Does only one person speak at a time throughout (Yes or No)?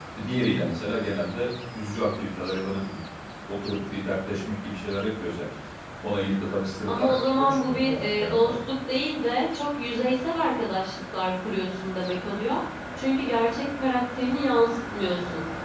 No